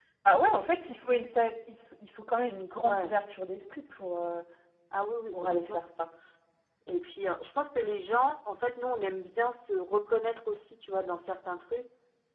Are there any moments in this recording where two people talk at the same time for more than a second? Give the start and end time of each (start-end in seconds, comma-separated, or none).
none